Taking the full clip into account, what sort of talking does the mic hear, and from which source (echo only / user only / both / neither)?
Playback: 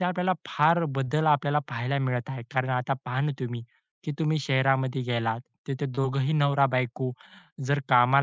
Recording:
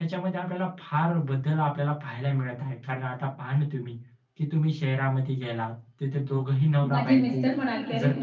both